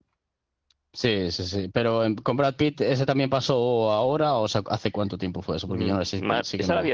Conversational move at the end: taking over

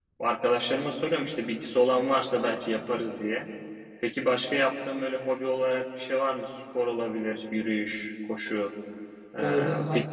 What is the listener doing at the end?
taking over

